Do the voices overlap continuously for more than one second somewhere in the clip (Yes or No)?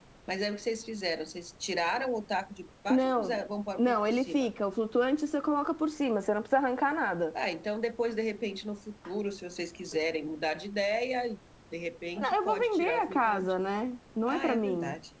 Yes